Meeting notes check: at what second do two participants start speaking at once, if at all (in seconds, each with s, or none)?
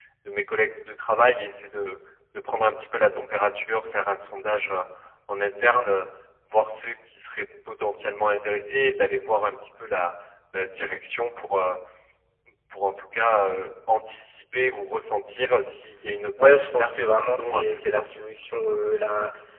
16.4 s